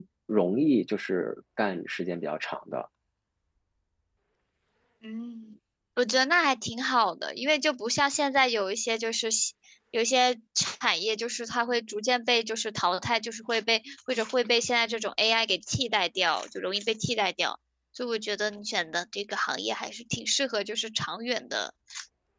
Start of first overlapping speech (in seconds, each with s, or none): none